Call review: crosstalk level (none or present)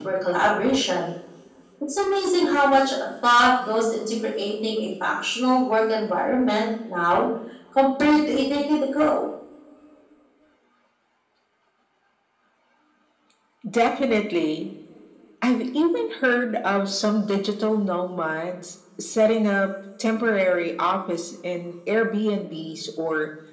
none